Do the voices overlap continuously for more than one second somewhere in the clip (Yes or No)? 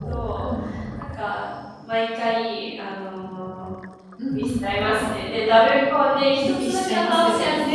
Yes